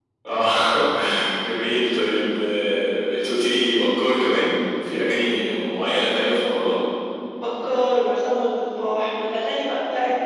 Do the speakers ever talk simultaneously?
No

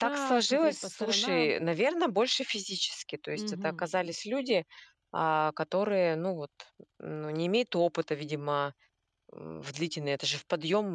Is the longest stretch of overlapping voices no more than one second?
No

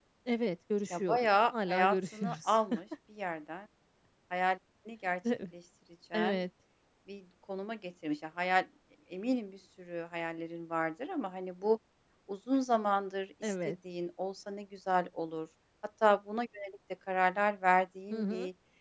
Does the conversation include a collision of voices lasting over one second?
Yes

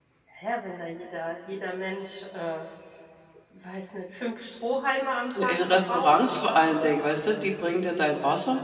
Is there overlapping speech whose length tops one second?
Yes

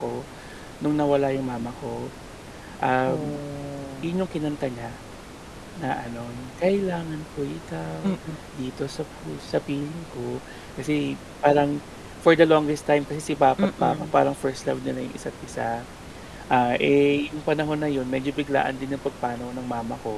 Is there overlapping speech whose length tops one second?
No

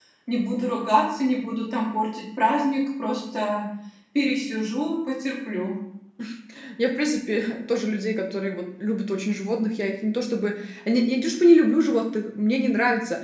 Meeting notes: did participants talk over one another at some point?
No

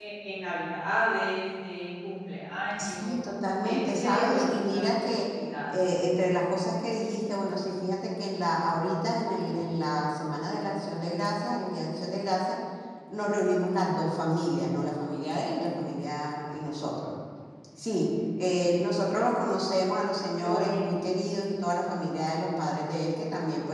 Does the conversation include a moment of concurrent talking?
Yes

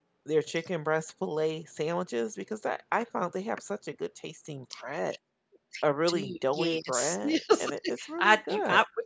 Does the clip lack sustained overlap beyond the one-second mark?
No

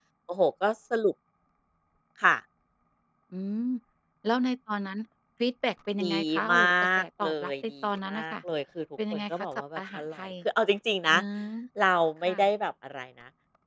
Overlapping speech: Yes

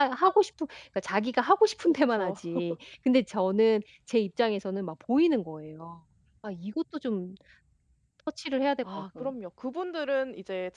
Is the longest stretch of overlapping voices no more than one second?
Yes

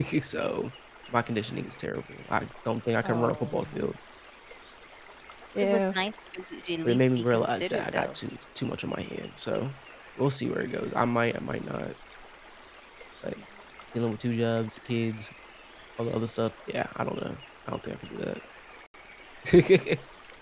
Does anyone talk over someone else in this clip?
Yes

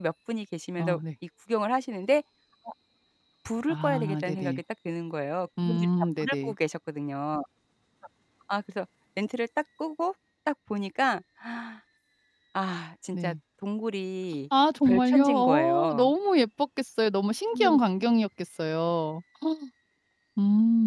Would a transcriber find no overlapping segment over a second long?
No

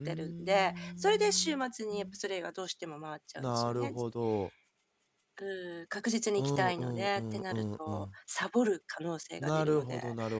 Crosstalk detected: Yes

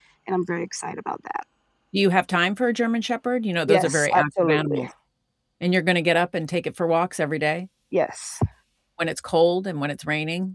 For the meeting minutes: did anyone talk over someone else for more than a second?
Yes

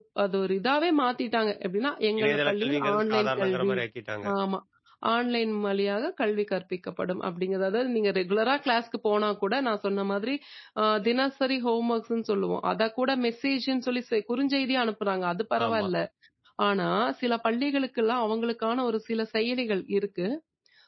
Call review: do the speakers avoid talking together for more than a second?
No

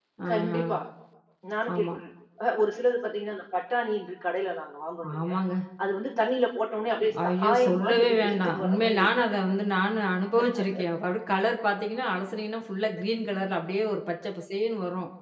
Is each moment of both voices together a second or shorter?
No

